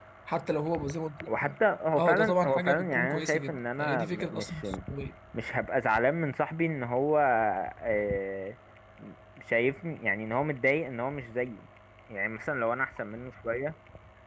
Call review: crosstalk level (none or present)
present